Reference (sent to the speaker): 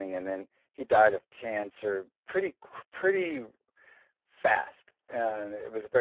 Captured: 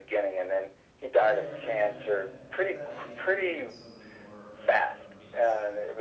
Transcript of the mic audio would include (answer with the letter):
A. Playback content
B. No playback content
A